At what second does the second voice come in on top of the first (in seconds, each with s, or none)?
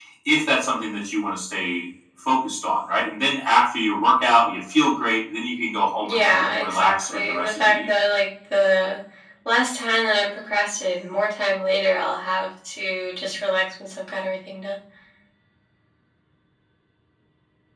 6.0 s